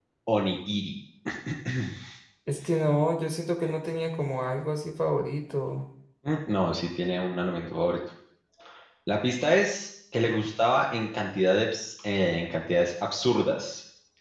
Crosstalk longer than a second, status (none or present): none